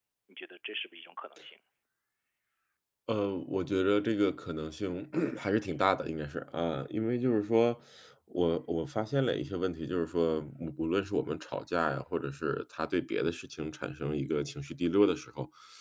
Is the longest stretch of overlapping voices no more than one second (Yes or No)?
Yes